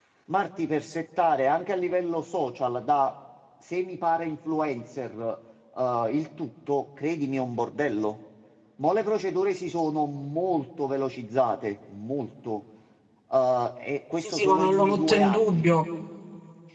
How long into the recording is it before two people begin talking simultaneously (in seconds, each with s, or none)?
14.2 s